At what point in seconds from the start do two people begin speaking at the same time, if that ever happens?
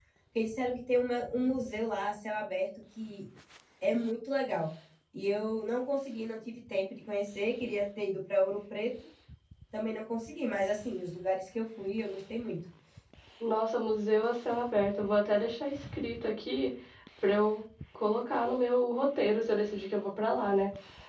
none

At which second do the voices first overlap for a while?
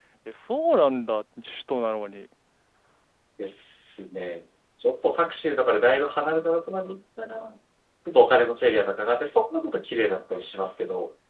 none

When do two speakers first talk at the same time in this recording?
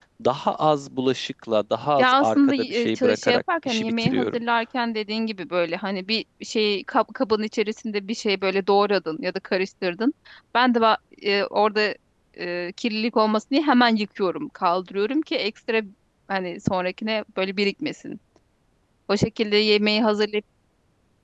2.0 s

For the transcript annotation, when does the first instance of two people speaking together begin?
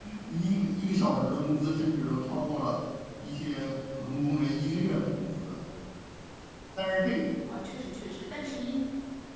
none

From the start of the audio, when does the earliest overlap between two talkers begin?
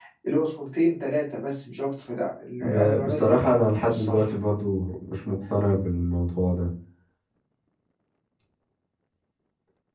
2.6 s

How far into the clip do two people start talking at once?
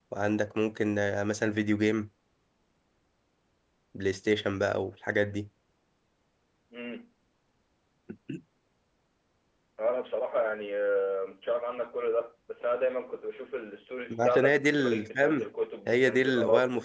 14.1 s

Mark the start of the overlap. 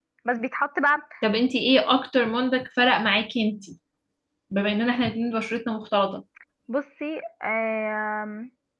none

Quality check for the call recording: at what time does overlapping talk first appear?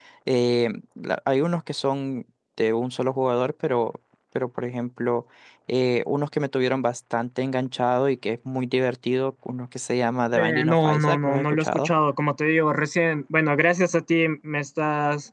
10.3 s

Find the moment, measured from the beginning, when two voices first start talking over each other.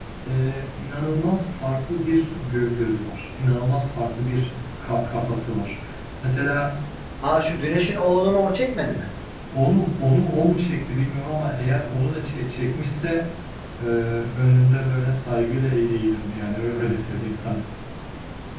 none

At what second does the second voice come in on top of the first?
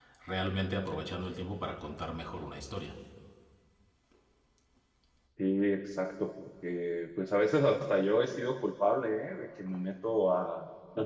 none

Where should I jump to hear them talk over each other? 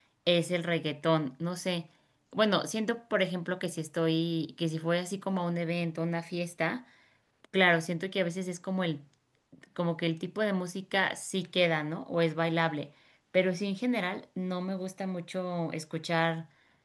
none

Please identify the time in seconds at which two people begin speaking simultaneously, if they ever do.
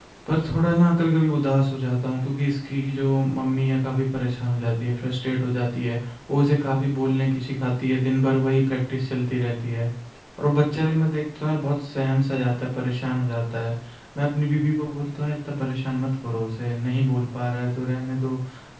none

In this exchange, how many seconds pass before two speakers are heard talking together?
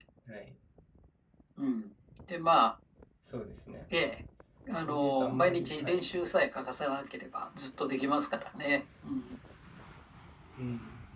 4.8 s

